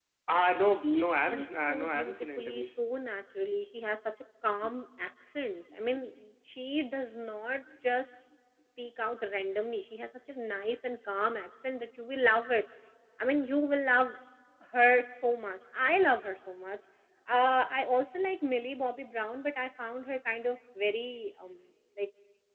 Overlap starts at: 0.8 s

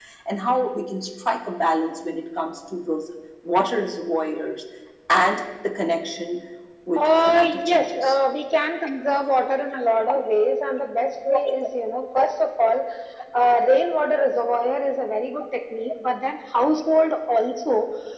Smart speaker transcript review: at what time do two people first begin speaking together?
7.0 s

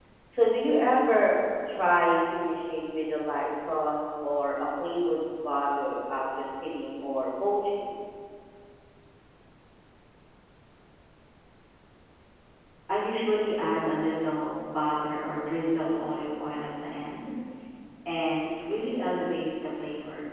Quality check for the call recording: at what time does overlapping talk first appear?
none

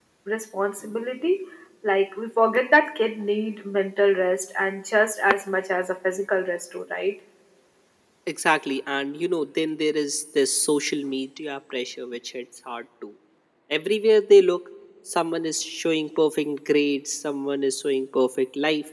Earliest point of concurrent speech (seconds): none

